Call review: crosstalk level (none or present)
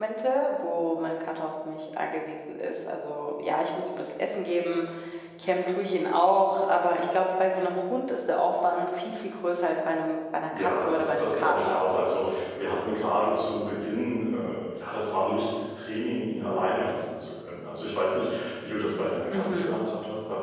present